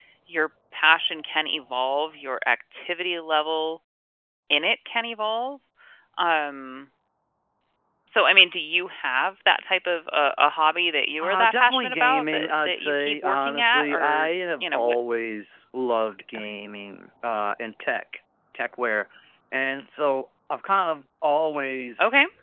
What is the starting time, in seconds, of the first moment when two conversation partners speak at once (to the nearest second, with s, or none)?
11 s